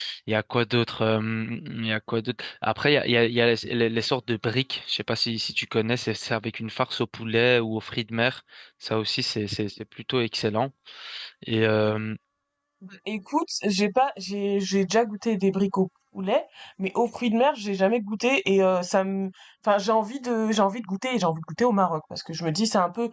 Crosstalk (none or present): none